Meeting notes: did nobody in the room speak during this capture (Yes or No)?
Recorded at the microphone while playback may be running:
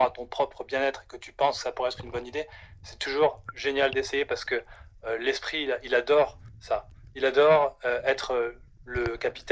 Yes